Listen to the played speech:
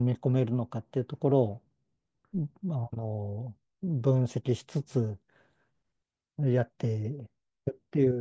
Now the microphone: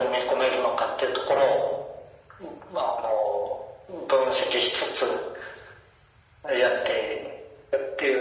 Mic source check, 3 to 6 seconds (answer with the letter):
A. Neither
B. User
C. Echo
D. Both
C